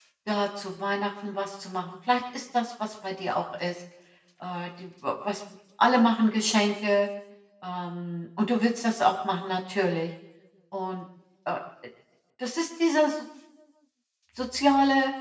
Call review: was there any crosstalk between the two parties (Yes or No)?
No